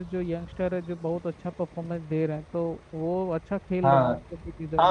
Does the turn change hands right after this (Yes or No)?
Yes